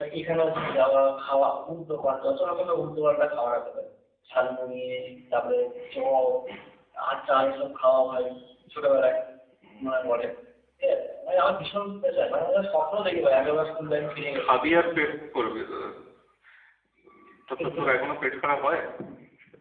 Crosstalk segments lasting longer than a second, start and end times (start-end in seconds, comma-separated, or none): none